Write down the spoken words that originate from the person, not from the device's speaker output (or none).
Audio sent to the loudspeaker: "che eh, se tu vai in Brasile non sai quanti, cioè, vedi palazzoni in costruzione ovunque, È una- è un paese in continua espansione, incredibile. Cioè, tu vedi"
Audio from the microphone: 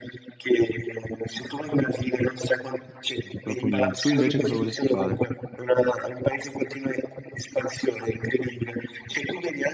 proprio niente. Tu invece cosa vorresti fare?